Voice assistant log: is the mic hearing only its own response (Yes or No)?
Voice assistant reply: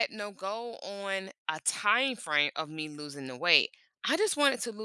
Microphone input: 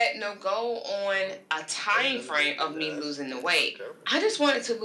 No